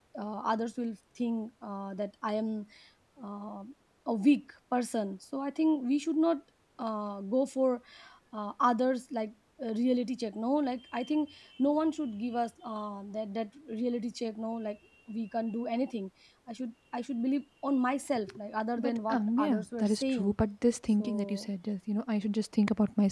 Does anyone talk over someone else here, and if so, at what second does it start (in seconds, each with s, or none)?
18.8 s